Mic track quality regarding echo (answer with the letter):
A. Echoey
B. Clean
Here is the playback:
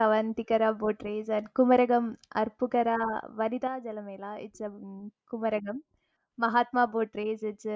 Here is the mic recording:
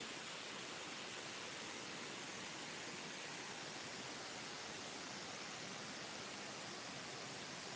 B